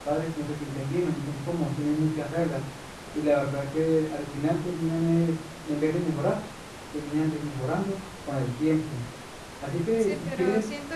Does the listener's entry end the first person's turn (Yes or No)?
Yes